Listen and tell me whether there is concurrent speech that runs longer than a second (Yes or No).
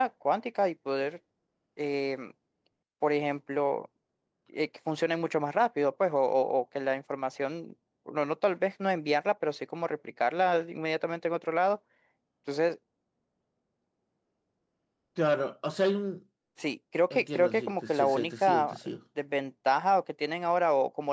Yes